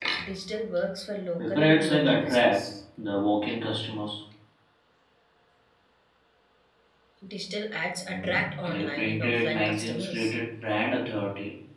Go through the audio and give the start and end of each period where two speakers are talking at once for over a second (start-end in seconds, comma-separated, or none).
1.4-2.6, 8.1-10.3